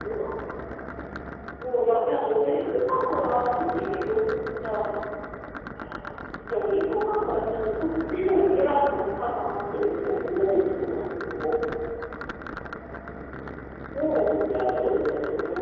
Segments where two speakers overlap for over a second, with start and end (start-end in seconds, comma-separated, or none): none